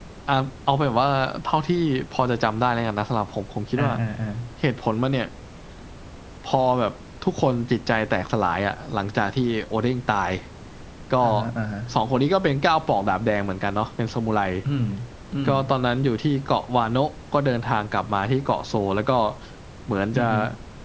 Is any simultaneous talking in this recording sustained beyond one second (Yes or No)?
No